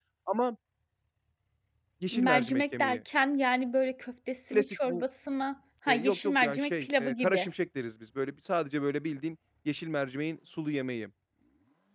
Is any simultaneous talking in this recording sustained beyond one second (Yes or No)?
Yes